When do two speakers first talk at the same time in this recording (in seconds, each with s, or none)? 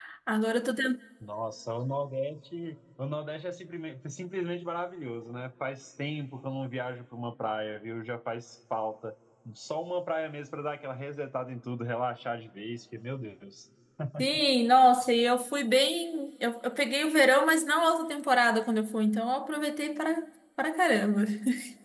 none